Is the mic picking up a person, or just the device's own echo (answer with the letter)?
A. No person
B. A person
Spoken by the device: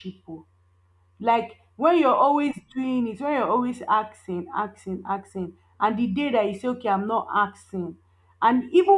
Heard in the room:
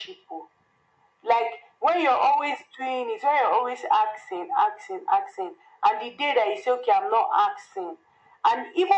A